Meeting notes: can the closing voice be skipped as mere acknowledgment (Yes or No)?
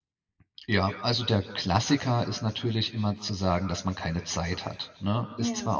Yes